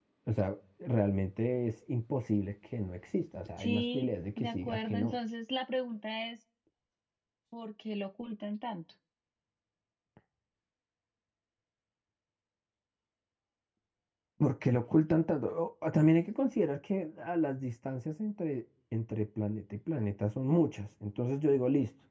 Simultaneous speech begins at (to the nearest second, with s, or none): 4 s